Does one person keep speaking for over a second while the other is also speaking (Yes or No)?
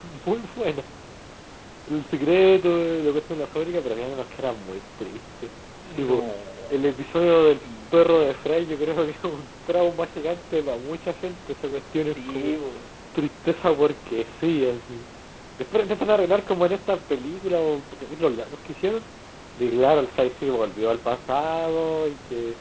No